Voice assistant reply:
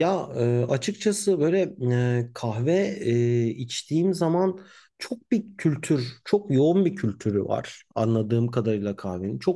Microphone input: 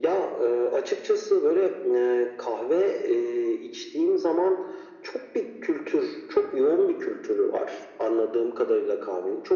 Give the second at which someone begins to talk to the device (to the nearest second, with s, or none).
none